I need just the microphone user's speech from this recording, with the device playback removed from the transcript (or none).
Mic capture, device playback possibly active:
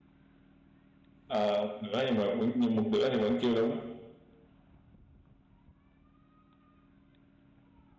Ờ, một nửa nhưng mà vẫn nhưng một nửa thì vẫn chưa đúng